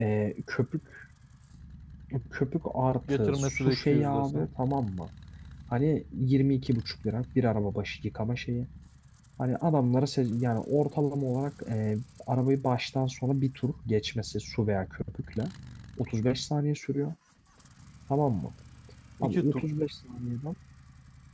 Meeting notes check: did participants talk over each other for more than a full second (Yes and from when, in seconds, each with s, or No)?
Yes, from 3.1 s